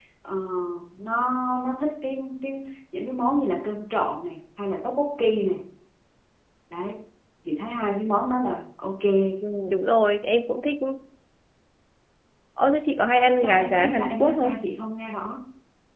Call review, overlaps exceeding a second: present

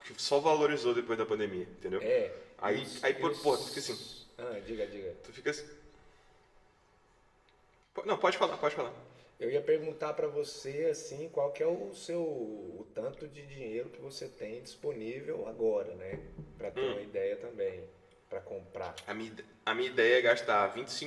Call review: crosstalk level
present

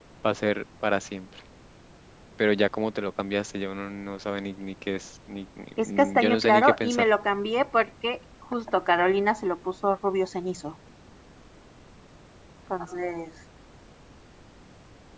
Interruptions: present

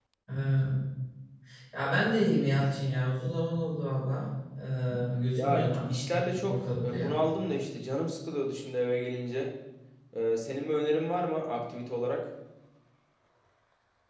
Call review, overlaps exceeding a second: present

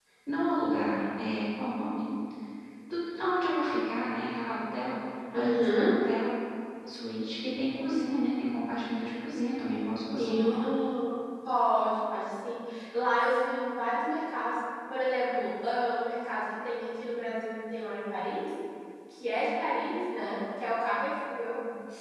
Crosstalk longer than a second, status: none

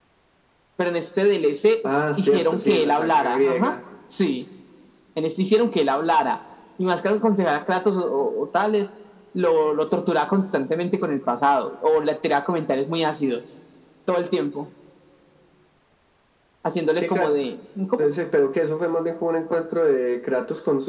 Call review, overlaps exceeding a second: present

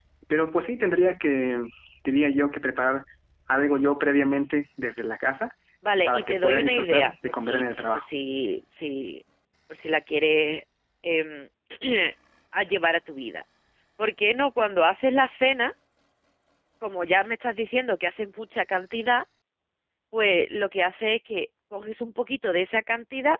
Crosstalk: present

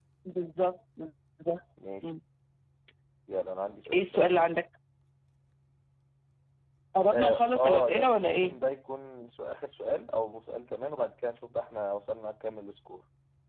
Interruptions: present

